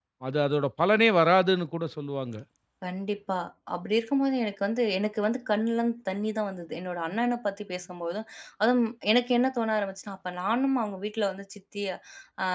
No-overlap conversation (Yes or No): Yes